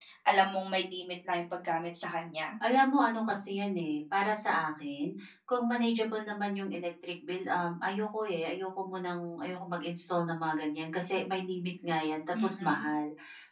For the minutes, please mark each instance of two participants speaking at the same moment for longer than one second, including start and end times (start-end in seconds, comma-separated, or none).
none